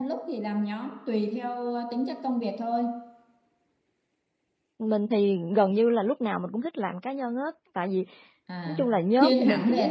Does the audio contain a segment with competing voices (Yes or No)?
Yes